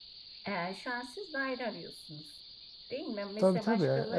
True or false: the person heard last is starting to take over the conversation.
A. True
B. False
A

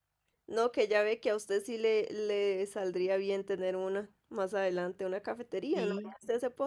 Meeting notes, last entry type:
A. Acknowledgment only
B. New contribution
A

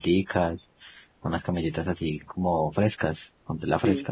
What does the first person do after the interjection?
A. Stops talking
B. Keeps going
A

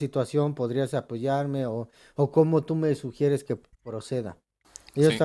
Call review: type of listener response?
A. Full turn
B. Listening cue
B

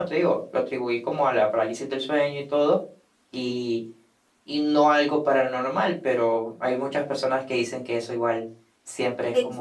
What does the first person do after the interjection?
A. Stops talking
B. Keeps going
A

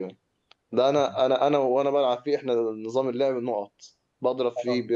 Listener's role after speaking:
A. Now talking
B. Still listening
B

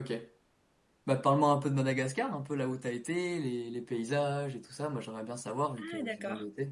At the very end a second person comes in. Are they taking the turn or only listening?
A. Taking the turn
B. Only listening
A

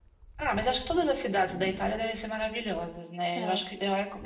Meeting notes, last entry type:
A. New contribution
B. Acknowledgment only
B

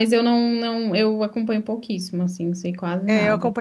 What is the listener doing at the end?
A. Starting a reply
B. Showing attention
A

